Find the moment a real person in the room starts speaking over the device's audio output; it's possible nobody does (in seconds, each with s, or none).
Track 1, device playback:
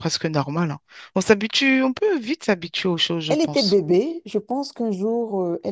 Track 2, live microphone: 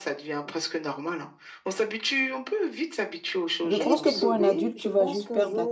3.6 s